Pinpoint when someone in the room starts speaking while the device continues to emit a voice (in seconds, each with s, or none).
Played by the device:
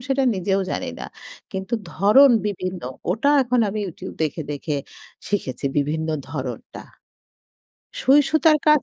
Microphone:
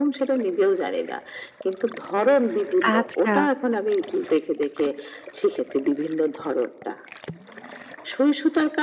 2.9 s